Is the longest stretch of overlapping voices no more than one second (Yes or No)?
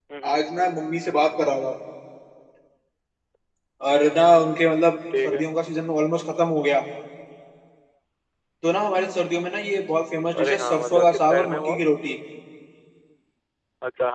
No